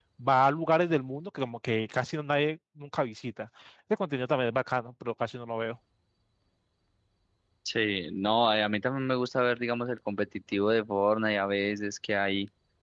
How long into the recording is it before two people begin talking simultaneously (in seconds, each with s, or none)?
none